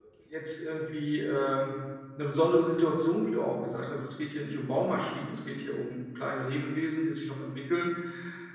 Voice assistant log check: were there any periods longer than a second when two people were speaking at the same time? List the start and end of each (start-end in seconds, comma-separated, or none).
none